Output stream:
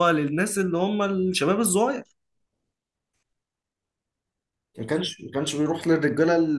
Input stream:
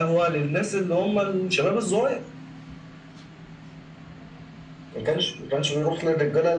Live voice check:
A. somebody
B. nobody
B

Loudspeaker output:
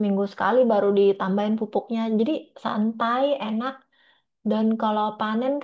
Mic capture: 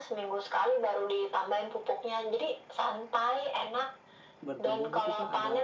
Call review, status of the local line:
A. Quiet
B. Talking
B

